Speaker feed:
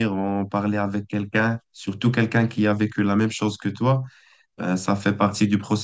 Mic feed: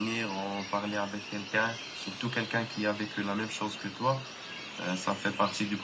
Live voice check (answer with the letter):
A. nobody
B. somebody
A